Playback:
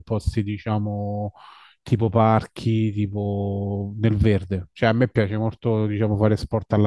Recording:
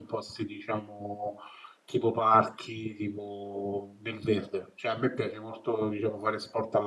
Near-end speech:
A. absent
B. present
A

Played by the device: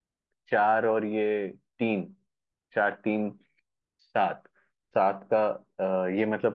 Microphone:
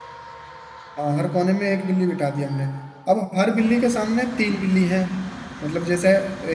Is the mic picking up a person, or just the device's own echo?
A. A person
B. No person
A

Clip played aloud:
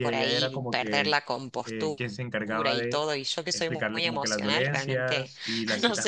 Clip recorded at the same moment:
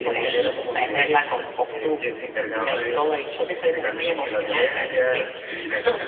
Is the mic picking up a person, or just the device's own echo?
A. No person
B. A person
A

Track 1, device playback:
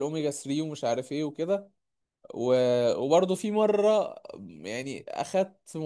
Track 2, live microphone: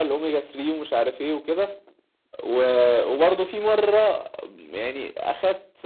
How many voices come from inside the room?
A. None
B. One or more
A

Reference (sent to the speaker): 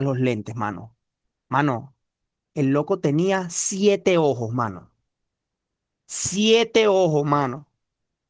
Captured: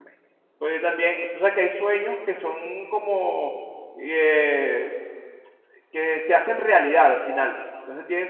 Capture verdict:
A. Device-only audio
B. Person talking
B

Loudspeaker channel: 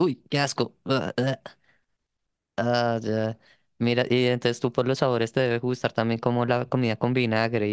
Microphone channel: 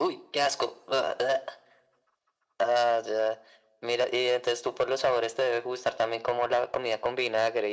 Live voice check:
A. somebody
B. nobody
B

